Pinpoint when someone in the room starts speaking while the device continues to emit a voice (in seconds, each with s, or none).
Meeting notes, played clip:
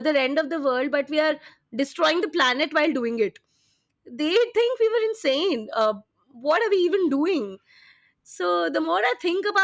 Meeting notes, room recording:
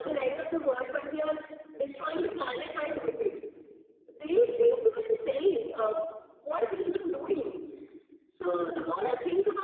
none